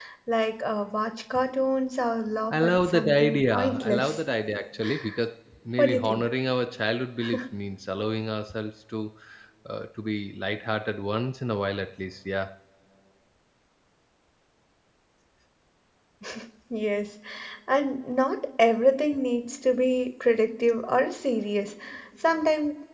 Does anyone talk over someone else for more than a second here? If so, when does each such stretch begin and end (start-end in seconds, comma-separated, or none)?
2.5-4.2